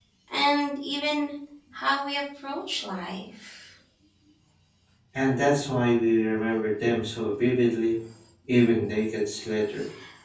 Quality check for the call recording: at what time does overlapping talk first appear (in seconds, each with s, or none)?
none